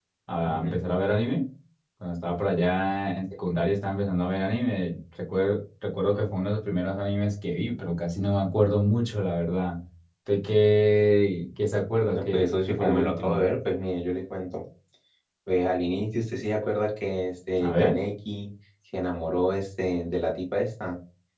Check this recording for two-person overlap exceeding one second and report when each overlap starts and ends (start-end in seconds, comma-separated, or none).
12.1-13.4